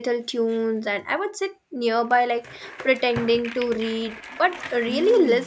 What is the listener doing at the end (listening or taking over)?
taking over